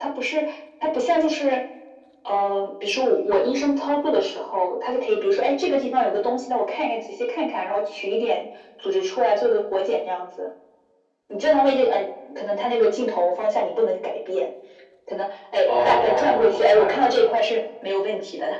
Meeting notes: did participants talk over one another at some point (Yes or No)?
Yes